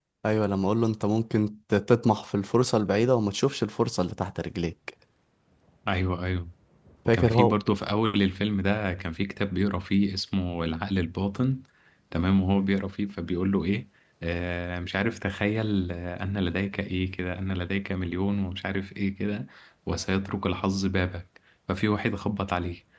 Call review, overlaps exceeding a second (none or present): none